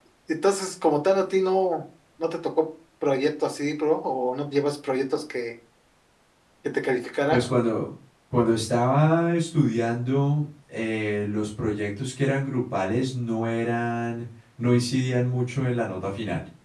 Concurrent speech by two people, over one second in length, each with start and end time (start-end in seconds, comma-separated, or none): none